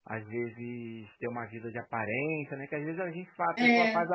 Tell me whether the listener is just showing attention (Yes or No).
Yes